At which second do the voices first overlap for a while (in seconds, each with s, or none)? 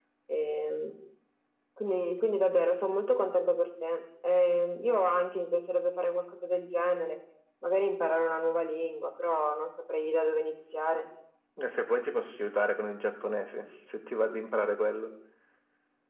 none